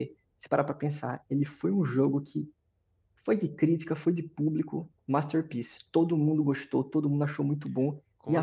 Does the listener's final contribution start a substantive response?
No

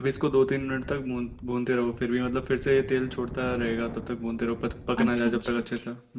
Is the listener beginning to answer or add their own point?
Yes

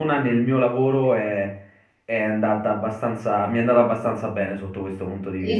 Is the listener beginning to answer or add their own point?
Yes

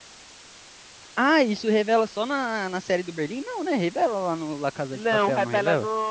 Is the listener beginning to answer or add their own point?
Yes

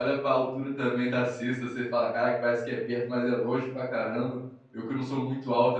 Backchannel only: Yes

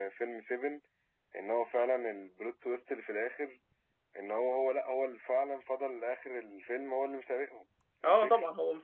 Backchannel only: No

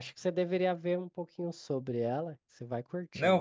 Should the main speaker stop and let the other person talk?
Yes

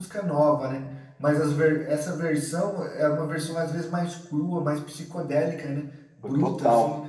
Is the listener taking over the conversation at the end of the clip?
Yes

